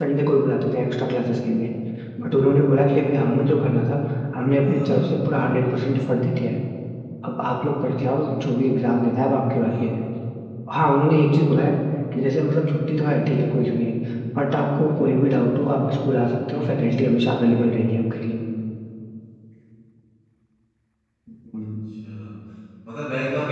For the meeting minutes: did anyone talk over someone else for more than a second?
No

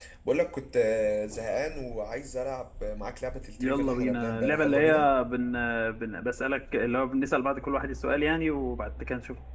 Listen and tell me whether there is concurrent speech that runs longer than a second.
Yes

